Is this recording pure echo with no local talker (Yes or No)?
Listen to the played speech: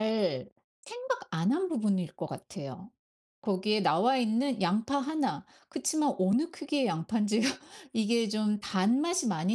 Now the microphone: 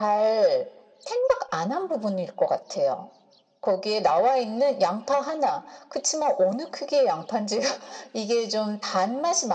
Yes